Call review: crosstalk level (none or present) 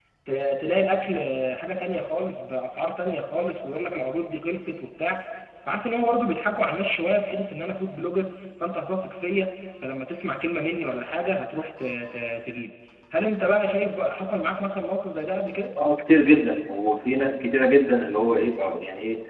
none